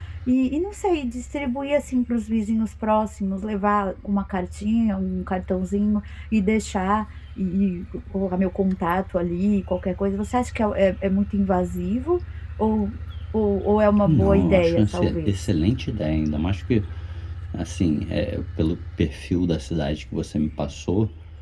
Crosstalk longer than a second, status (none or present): present